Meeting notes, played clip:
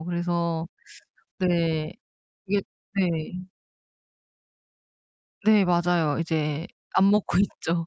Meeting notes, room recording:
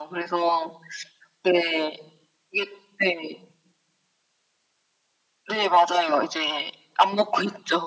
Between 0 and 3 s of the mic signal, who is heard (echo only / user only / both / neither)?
echo only